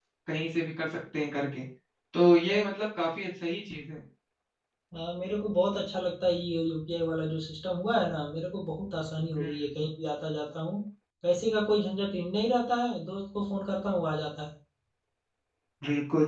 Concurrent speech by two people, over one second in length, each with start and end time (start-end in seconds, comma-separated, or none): none